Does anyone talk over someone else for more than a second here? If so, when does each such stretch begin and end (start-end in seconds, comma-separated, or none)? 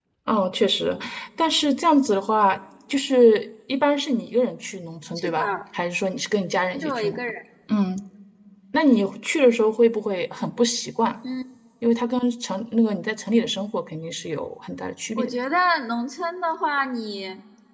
none